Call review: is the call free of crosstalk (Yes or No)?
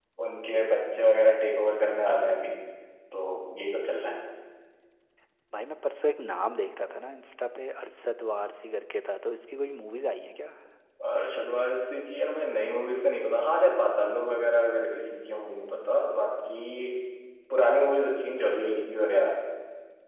Yes